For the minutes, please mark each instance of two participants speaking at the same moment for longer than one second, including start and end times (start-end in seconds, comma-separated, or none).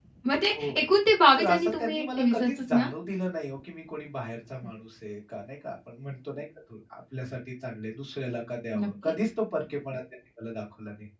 1.4-2.9